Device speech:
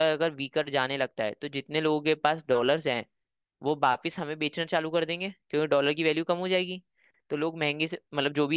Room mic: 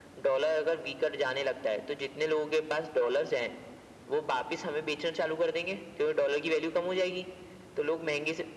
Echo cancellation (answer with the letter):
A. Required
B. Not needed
A